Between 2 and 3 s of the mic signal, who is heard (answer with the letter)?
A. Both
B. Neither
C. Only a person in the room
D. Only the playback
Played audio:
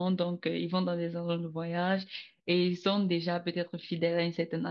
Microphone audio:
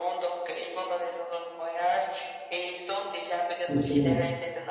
D